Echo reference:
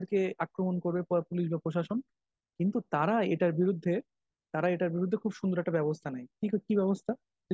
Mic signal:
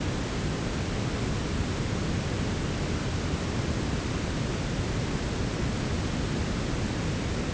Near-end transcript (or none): none